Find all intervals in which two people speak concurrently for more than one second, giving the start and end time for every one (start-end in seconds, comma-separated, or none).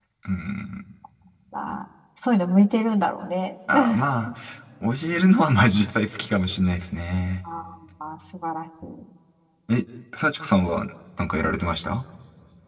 none